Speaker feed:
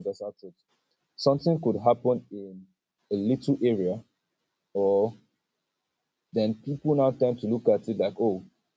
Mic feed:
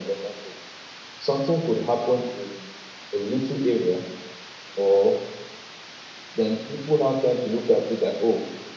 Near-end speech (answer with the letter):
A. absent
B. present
A